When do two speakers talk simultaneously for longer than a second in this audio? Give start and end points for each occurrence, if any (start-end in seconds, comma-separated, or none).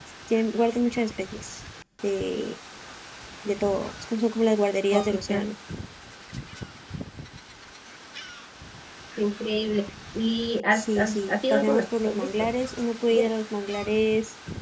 10.7-12.3